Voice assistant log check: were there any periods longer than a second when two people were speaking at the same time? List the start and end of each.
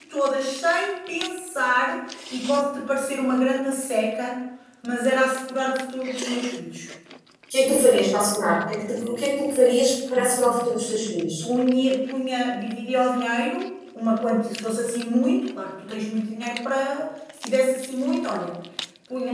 none

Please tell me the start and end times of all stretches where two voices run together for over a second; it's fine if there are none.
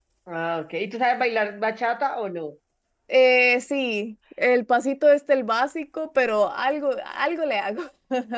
none

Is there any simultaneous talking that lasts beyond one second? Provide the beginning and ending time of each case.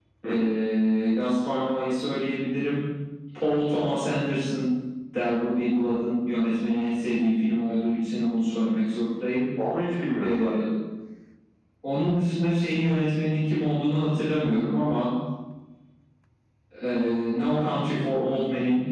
none

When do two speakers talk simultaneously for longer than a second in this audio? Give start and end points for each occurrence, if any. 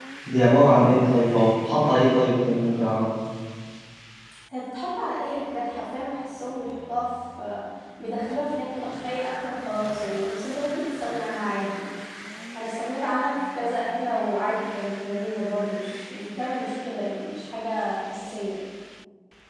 none

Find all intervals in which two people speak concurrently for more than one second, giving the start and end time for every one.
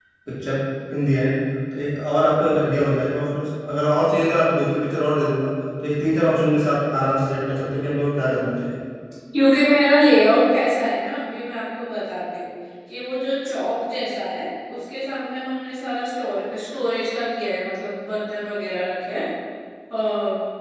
none

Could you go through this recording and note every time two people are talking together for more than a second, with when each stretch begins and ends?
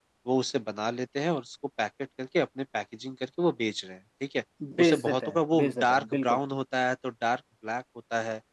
4.8-6.4

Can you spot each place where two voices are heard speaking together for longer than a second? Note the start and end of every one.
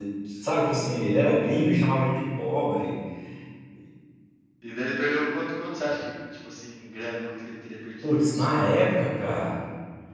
none

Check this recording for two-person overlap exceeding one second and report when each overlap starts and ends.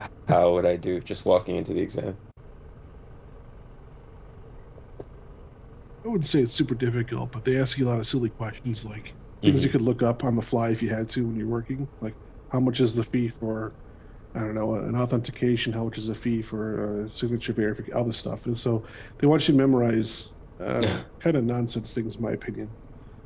none

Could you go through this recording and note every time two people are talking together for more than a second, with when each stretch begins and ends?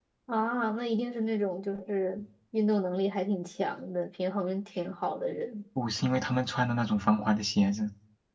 none

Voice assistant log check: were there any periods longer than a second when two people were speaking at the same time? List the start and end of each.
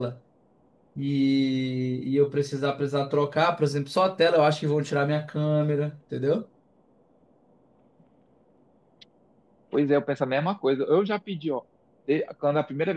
none

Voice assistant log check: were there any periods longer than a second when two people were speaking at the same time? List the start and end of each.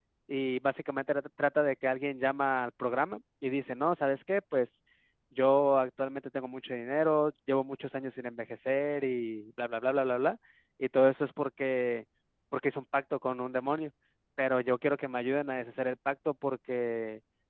none

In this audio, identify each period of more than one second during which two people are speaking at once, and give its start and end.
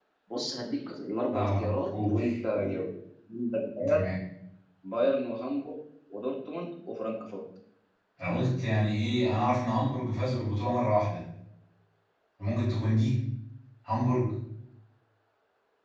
1.3-2.8

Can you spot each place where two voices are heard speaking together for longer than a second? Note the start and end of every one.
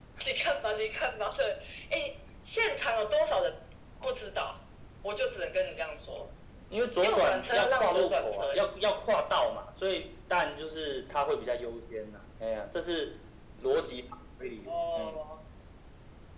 7.0-8.6

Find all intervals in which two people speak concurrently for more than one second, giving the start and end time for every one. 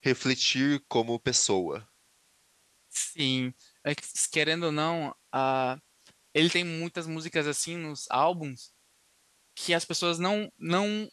none

